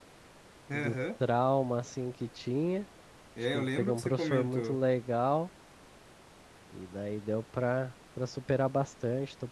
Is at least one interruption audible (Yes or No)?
Yes